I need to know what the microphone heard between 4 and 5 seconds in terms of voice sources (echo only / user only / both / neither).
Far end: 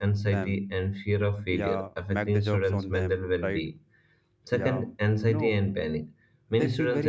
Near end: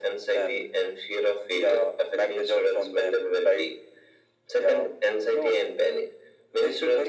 echo only